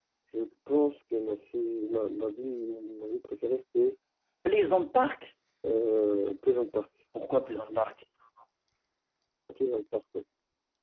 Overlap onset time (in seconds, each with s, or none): none